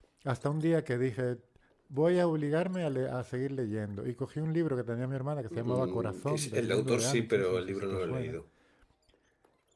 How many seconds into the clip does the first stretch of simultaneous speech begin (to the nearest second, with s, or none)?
6 s